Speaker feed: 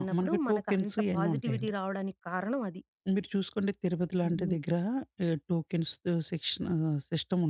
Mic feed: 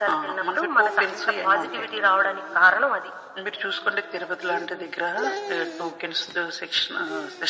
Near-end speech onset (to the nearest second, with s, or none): none